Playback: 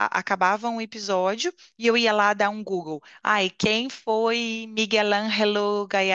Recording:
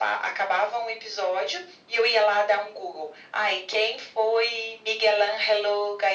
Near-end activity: none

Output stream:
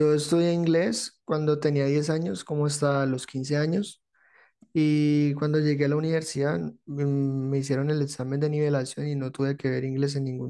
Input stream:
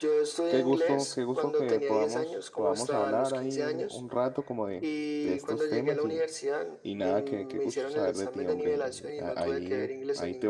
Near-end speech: present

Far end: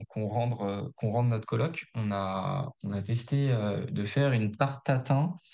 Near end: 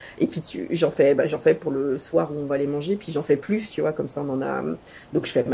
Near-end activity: present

